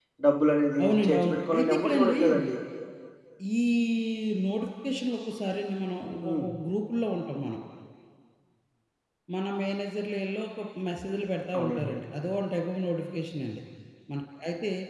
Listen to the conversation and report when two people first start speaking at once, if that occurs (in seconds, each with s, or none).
0.8 s